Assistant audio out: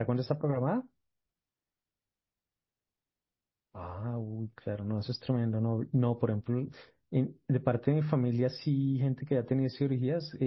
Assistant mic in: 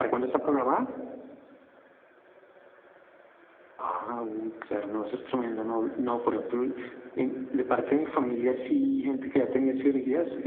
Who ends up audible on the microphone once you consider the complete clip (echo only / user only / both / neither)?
echo only